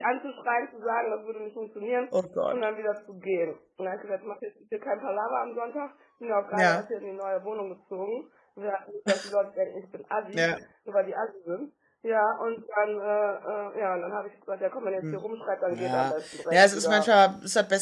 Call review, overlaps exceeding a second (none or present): present